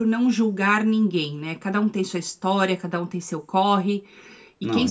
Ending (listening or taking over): listening